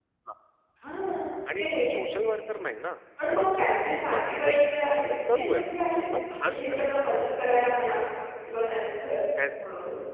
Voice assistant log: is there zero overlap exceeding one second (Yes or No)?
No